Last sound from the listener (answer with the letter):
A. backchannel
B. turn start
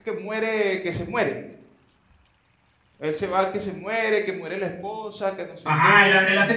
B